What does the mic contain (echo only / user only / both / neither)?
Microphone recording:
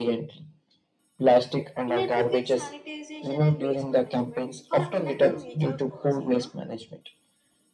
both